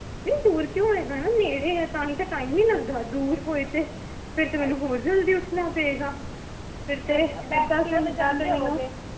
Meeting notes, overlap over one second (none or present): present